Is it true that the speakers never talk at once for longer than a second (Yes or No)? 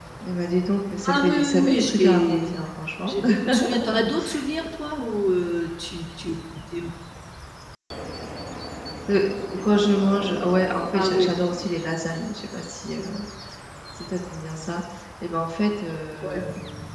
No